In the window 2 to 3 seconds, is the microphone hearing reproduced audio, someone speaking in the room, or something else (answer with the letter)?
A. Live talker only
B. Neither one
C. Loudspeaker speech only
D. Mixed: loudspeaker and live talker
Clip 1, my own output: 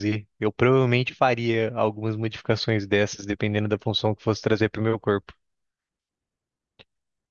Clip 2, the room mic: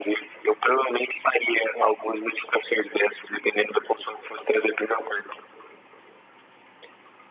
C